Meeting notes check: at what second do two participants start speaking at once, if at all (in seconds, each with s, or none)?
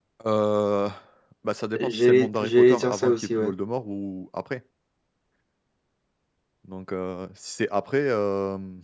1.8 s